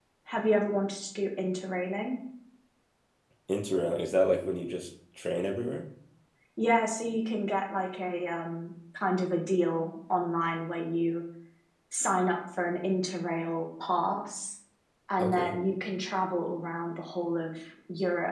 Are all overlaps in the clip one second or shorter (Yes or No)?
Yes